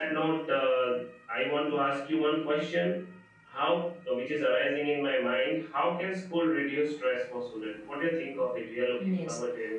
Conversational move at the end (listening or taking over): taking over